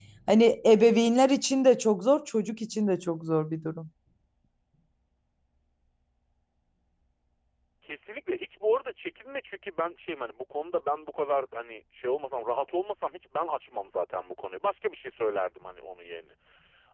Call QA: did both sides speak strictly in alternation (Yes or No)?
Yes